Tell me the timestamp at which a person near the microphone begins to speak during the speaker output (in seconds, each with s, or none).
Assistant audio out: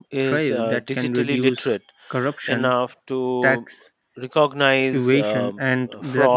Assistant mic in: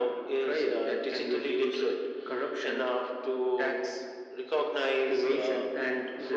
none